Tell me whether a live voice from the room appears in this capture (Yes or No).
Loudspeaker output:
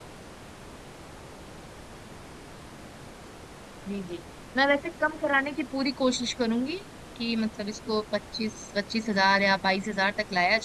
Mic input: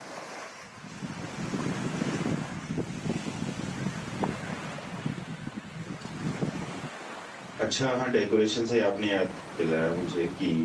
Yes